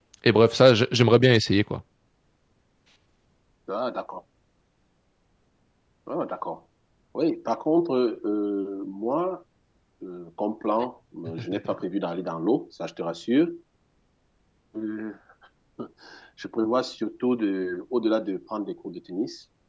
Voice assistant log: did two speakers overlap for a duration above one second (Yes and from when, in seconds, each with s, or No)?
No